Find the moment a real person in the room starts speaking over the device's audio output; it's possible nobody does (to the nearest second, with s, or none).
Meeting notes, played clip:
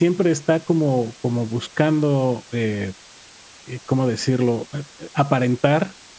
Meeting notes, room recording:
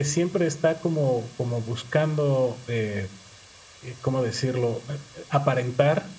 none